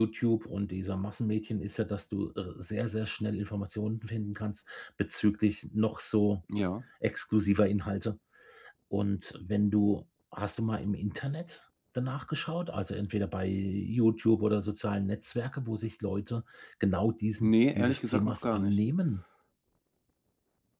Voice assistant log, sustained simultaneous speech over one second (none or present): present